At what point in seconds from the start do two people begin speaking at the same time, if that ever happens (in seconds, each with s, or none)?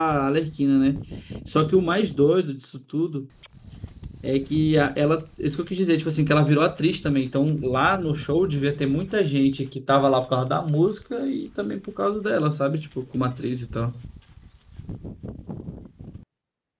none